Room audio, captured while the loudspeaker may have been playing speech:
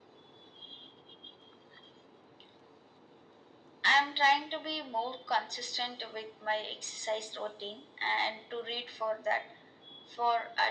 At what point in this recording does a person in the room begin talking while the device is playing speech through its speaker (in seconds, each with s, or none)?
none